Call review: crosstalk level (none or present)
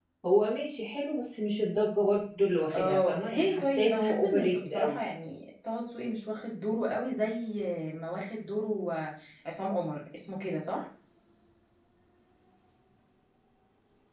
present